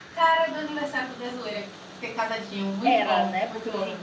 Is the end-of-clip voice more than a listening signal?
Yes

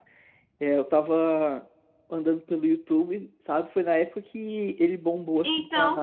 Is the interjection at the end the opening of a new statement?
No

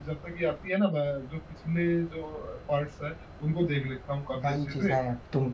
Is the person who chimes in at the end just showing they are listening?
No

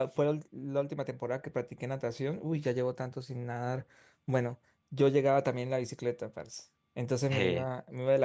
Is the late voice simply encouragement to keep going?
Yes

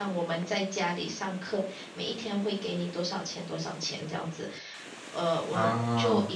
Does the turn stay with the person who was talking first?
Yes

